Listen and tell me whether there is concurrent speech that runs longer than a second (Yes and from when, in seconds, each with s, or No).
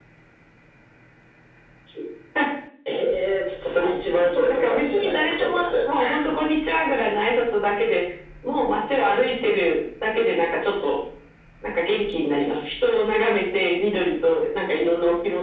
Yes, from 3.8 s